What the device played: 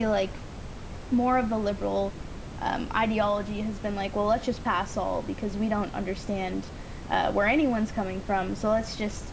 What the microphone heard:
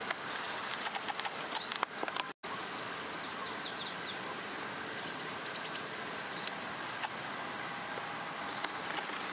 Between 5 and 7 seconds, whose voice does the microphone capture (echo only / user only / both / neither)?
neither